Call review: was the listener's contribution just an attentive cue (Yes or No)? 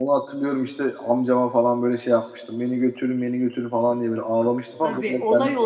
No